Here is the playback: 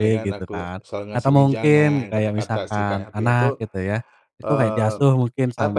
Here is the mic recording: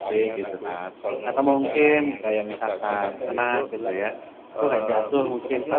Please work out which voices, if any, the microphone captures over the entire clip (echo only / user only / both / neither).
both